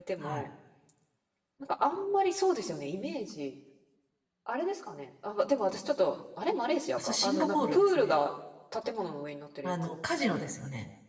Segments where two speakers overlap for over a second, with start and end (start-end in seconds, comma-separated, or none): 7.0-8.2